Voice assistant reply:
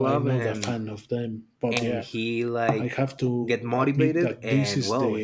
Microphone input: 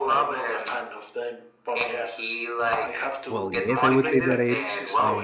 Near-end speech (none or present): present